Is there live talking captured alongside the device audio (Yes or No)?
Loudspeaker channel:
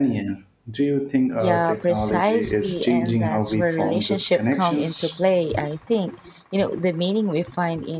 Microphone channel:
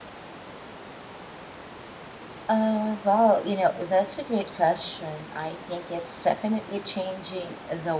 Yes